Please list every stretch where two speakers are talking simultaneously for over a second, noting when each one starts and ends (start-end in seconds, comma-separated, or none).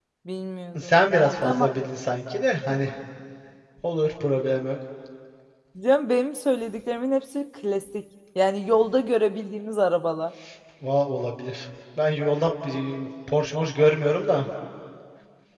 none